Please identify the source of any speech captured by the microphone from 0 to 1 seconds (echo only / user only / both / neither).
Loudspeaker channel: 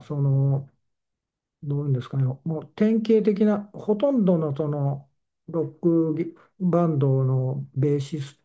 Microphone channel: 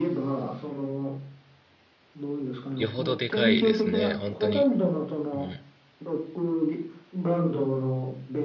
echo only